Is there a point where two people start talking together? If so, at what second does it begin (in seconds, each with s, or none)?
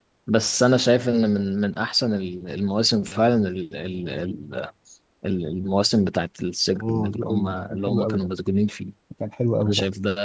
6.8 s